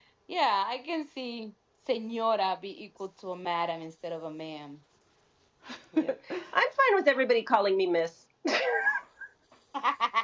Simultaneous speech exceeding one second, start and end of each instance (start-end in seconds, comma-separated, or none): none